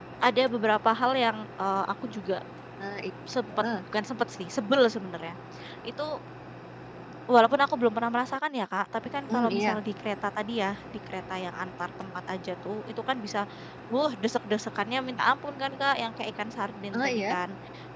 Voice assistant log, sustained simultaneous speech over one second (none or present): none